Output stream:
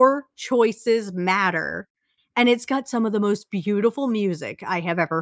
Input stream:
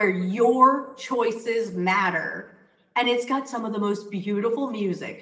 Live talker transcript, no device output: none

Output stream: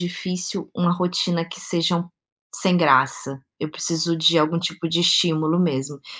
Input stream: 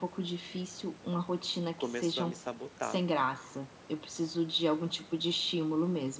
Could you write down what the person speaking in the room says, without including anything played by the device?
começou a me sabotar,

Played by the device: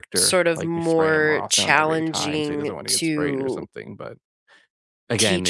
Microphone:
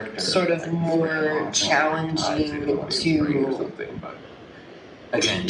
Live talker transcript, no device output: none

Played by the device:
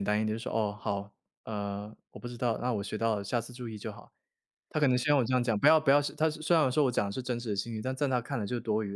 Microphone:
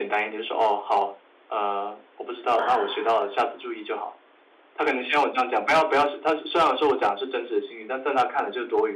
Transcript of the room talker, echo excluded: 啊，

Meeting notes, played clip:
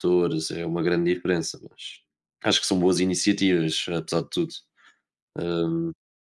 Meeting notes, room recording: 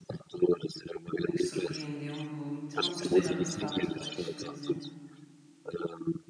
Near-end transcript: eh, surpreendeu-me muito. Não gostei nada de Rabo de Peixe, por exemplo,

